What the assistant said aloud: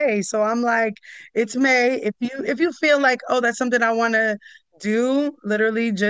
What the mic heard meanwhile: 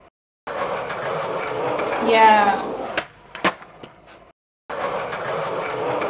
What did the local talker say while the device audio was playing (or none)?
Yeah.